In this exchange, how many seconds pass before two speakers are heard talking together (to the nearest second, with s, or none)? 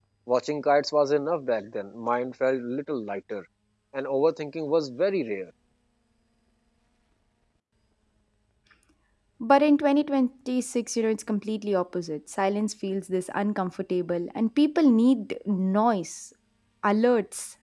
none